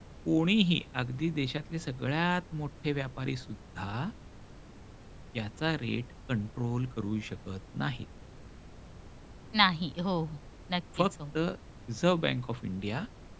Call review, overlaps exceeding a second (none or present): none